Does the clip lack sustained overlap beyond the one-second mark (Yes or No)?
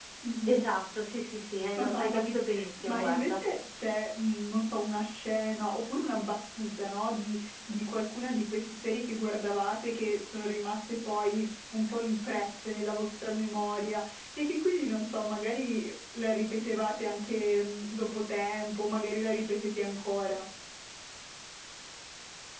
Yes